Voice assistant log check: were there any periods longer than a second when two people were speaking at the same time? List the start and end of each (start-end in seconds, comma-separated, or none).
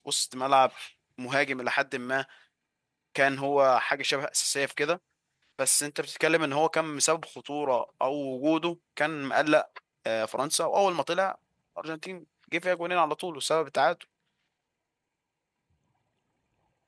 none